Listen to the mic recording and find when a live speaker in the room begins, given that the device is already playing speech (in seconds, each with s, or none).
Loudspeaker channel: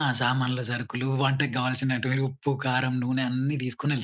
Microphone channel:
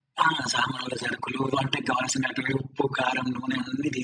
none